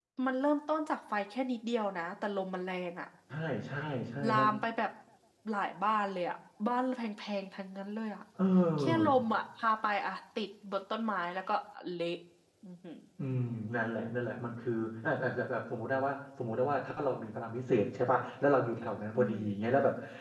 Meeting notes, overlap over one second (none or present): none